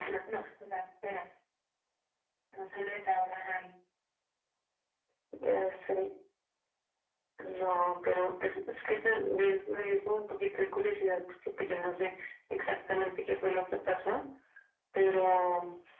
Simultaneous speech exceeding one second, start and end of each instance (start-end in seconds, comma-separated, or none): none